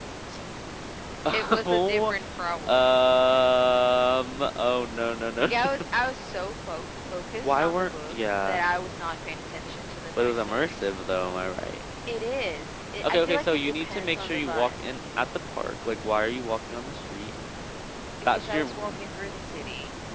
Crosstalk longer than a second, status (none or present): present